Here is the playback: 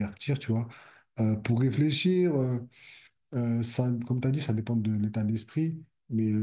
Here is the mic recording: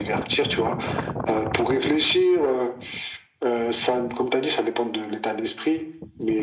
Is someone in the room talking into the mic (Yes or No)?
No